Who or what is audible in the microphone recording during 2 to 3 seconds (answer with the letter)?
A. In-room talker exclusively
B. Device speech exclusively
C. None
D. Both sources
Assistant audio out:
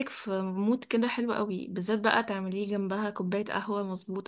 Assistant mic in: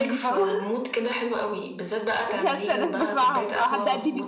D